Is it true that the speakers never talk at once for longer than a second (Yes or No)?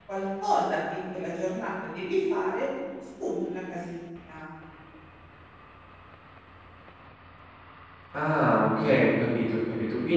Yes